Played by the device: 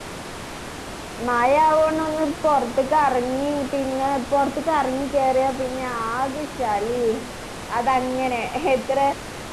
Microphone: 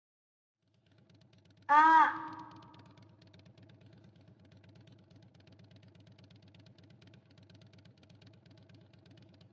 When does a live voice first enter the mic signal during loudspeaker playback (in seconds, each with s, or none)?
1.8 s